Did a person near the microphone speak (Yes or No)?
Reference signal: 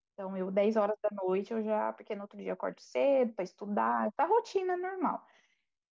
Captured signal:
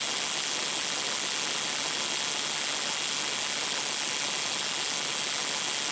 No